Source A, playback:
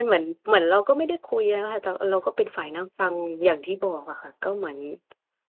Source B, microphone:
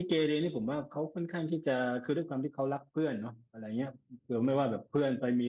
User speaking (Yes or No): Yes